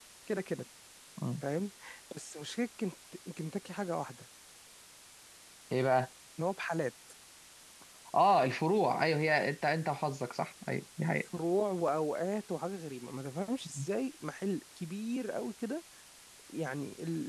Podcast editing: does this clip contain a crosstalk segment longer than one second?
No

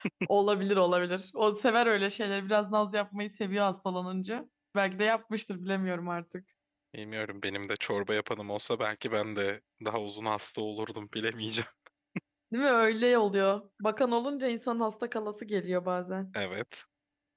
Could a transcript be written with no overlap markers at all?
Yes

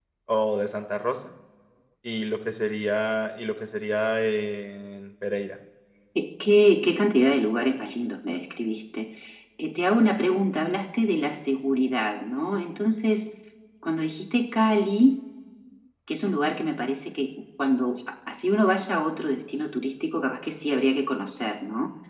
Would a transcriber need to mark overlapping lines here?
No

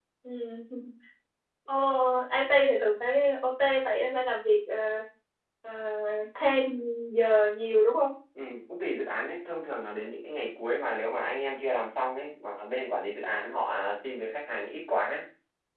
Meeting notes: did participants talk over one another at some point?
No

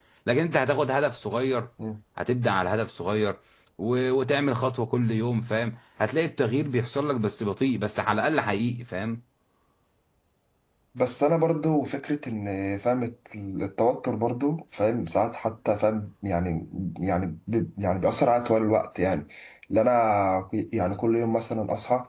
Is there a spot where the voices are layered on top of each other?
No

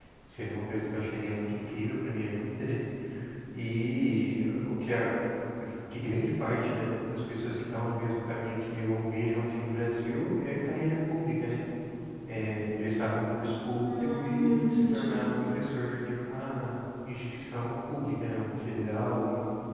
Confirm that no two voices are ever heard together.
No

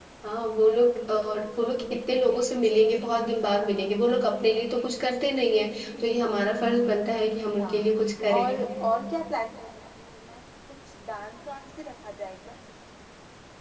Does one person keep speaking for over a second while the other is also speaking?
No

